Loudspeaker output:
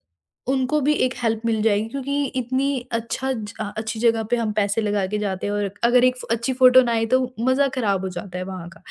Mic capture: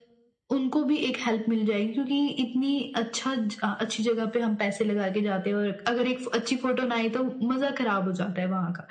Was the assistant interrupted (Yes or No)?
No